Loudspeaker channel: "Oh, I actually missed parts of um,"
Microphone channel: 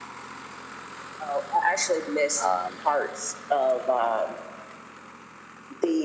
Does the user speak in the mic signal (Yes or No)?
Yes